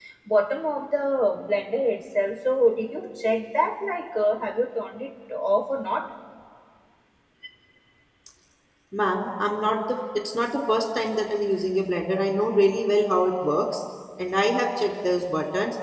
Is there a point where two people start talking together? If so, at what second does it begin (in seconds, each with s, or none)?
none